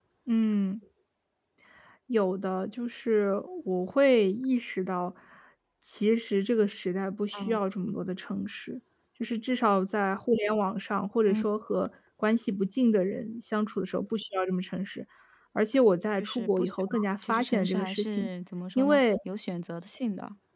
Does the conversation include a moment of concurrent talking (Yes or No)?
Yes